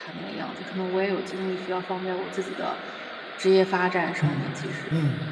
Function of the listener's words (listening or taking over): taking over